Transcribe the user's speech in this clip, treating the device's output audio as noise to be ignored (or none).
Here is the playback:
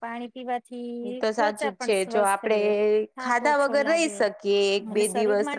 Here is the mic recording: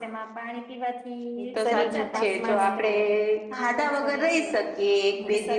શરીર નું તાપમાન